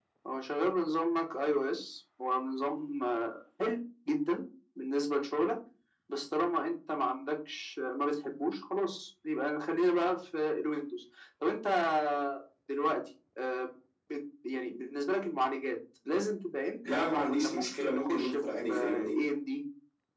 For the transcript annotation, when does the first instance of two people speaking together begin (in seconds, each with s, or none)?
16.9 s